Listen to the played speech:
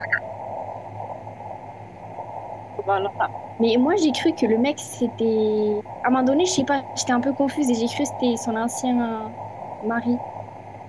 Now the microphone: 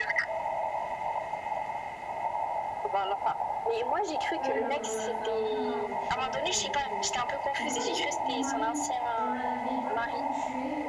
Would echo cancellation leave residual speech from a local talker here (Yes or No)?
Yes